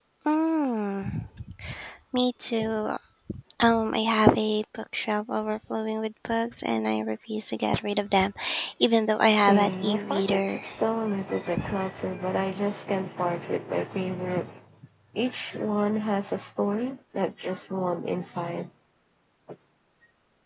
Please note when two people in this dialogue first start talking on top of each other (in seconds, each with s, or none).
9.3 s